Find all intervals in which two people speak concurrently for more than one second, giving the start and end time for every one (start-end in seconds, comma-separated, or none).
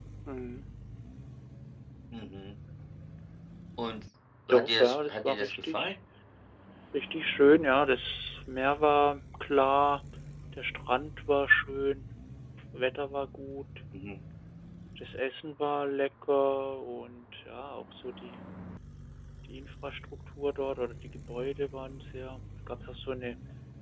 4.5-6.0